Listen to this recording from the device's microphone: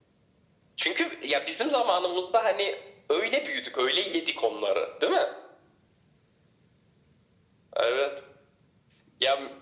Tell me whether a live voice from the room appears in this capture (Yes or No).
No